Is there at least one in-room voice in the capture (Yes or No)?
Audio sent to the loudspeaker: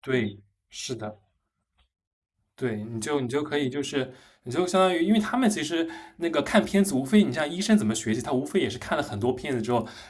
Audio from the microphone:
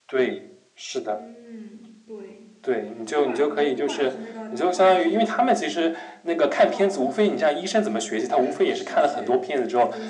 Yes